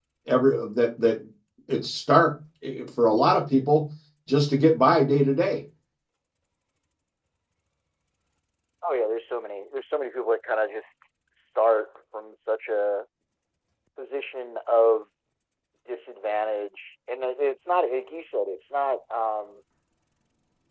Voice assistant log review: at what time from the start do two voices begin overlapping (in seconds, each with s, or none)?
none